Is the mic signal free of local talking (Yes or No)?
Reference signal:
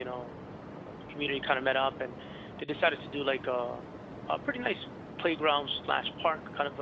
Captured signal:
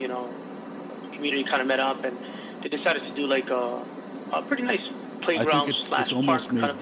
No